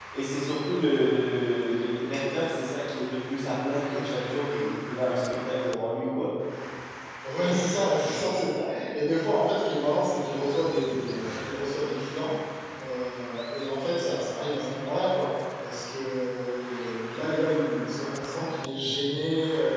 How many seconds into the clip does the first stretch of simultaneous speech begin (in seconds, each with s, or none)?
none